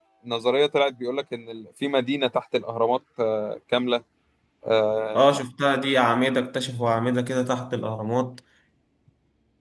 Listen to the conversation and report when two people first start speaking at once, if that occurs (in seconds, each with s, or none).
none